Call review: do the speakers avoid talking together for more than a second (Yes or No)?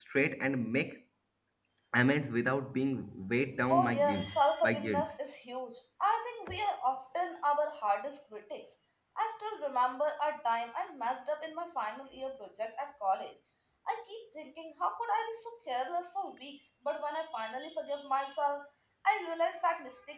No